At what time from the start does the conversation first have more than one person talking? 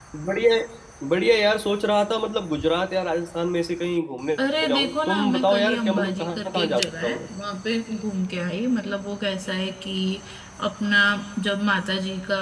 4.4 s

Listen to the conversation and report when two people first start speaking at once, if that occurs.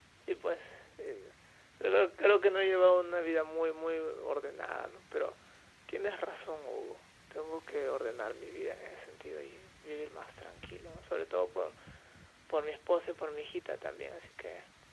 none

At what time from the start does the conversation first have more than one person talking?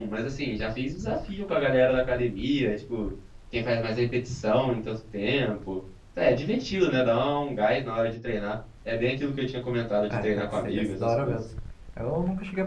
10.1 s

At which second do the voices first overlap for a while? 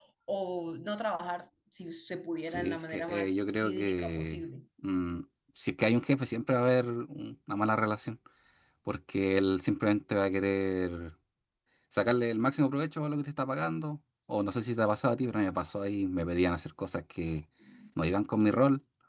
2.5 s

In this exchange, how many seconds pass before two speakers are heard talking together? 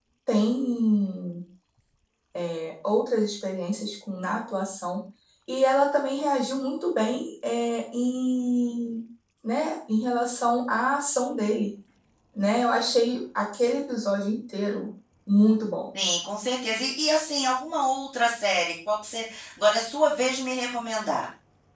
none

